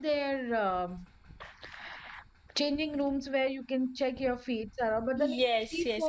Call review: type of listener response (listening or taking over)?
taking over